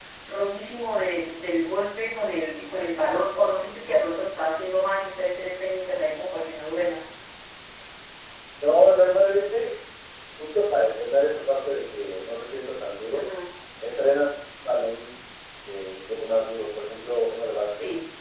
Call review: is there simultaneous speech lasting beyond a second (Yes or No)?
No